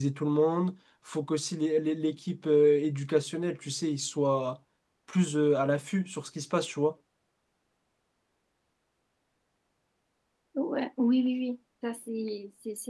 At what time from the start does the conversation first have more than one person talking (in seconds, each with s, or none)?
none